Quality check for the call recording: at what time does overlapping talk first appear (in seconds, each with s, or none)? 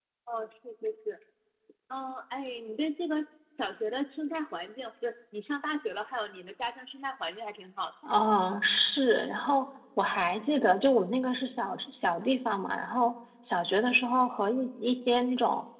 none